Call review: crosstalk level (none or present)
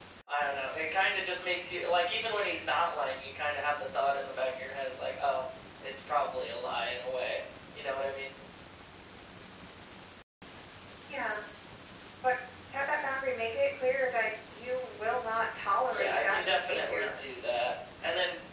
present